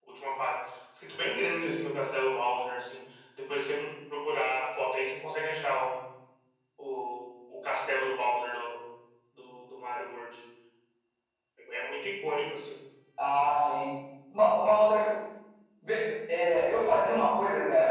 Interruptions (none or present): none